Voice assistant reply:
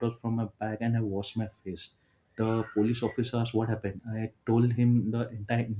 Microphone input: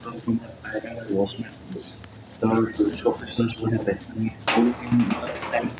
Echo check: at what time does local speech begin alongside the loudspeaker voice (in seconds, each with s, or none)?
none